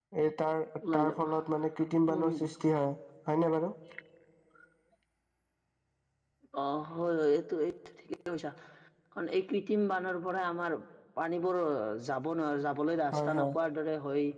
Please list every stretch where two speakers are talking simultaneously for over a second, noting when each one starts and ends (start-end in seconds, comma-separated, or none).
none